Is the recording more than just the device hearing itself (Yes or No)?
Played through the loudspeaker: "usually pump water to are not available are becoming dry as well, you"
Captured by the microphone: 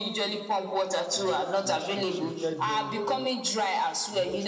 Yes